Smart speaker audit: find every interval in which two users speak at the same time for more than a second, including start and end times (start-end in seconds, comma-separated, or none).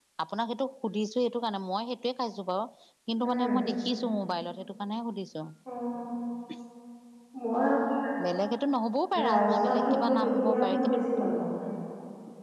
9.3-11.0